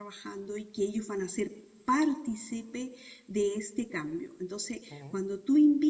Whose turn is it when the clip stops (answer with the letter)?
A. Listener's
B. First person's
B